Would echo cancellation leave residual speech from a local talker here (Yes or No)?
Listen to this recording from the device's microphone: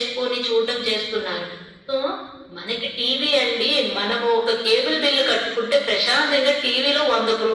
No